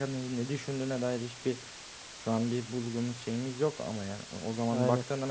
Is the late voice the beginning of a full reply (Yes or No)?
No